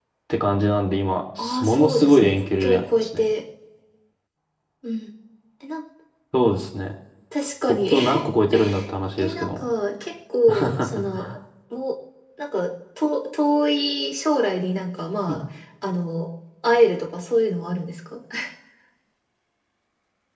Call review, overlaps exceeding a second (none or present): present